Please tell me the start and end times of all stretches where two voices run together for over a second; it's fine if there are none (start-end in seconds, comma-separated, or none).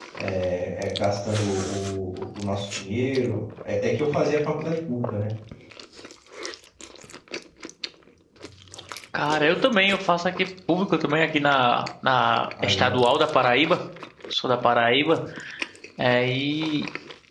none